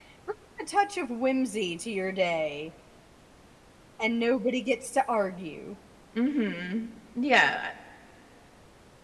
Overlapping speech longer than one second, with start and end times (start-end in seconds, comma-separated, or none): none